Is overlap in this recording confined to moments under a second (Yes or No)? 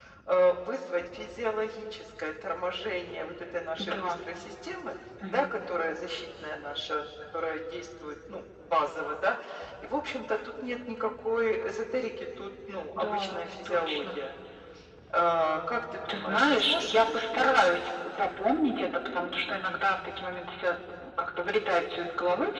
No